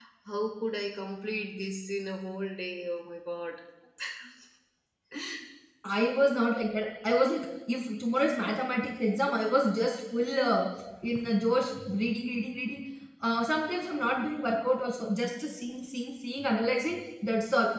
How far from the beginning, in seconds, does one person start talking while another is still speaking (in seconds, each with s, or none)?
none